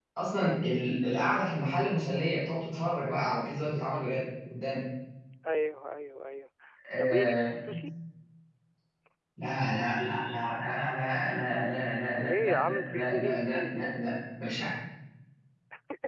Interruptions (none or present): present